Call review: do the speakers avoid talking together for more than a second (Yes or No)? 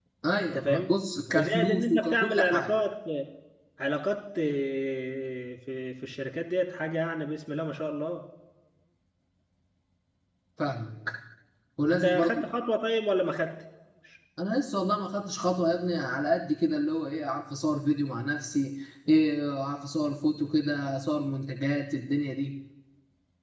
No